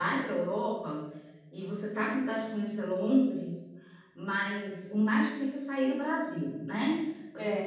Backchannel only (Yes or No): No